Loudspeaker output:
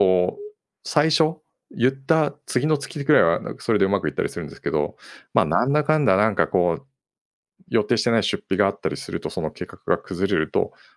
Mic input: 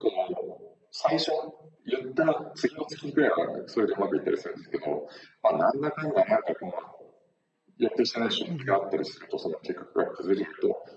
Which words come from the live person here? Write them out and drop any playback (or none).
うんうん。